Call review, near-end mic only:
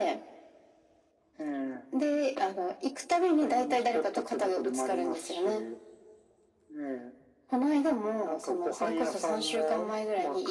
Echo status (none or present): present